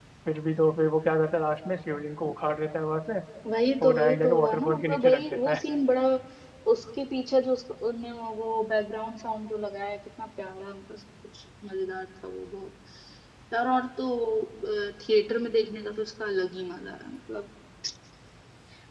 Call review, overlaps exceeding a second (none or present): present